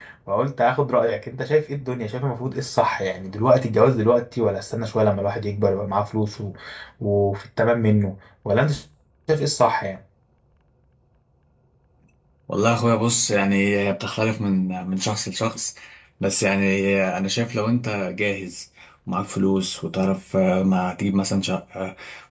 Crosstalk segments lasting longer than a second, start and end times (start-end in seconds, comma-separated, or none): none